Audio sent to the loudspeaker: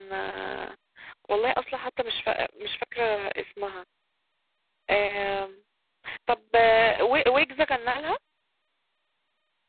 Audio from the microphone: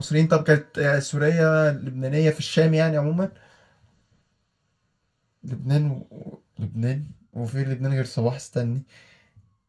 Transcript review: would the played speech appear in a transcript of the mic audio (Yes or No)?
No